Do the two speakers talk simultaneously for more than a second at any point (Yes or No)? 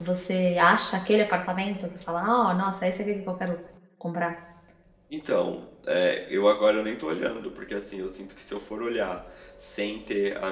No